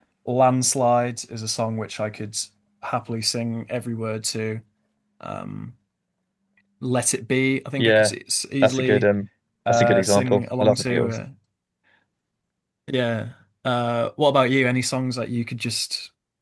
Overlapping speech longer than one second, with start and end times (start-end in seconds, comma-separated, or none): 9.7-11.2